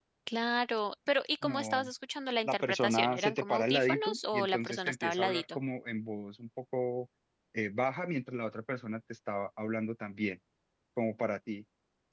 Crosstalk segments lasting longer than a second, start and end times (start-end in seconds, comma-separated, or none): 2.4-5.6